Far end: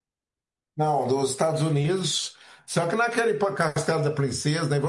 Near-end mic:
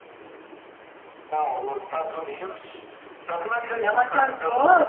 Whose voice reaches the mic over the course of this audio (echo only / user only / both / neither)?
both